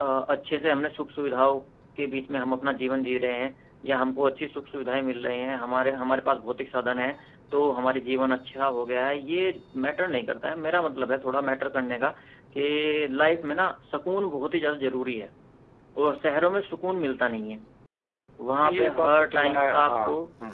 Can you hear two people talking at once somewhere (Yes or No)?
Yes